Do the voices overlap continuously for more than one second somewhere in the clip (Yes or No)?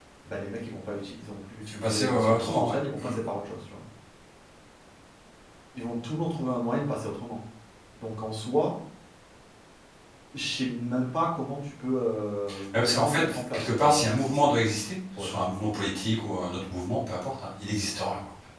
Yes